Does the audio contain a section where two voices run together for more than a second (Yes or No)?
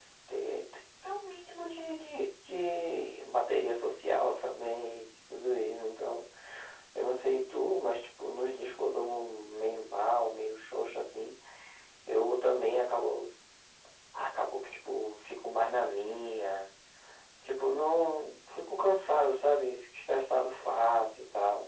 No